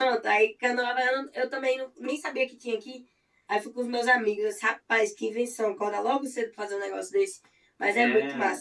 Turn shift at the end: Yes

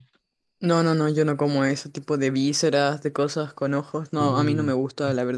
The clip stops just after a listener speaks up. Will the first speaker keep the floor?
Yes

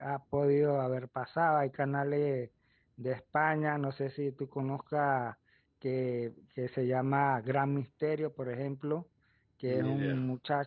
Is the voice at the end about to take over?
No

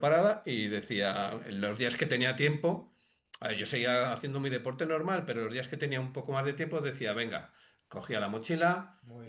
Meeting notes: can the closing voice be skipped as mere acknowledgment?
Yes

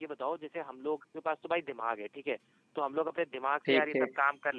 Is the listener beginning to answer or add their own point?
No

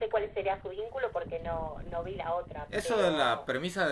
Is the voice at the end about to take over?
Yes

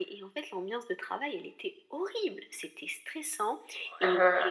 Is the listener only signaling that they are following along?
Yes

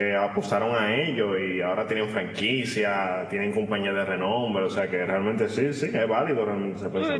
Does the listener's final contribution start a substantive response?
Yes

